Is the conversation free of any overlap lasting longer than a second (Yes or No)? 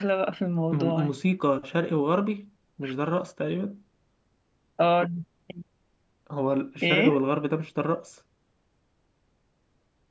Yes